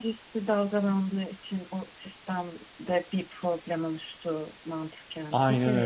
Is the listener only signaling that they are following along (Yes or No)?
No